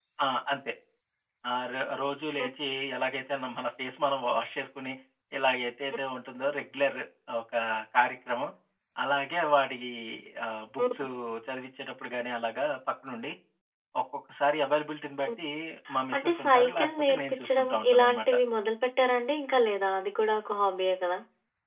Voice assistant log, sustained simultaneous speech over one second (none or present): present